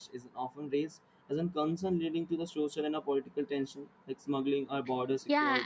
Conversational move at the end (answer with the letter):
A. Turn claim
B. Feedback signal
A